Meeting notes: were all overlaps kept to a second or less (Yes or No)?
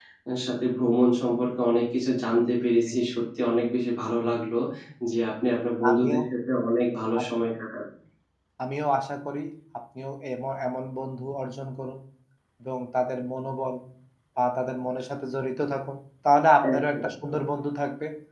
Yes